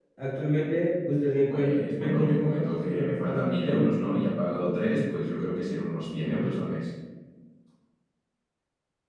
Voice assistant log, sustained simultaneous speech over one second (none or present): present